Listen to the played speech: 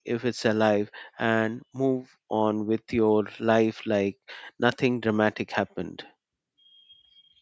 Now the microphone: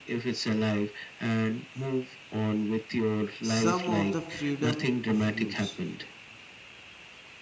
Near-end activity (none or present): present